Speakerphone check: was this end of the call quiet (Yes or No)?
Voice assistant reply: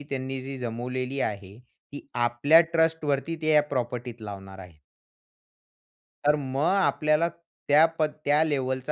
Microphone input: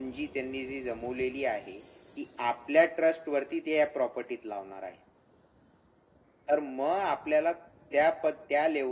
Yes